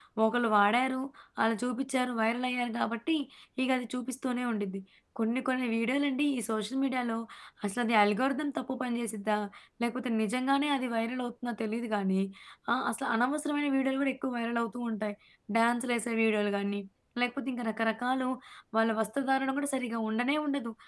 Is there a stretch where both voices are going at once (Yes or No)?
No